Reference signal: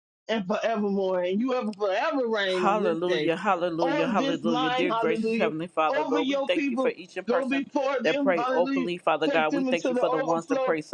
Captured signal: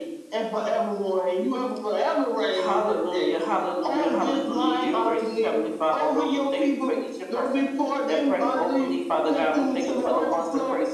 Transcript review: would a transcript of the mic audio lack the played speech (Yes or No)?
No